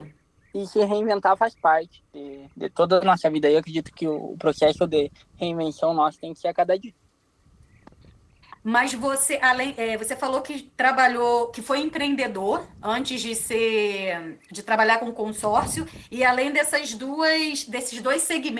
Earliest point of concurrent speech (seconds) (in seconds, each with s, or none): none